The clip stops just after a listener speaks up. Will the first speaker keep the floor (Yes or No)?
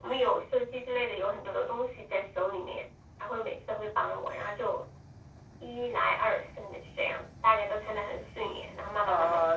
No